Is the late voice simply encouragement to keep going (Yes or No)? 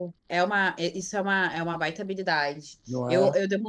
Yes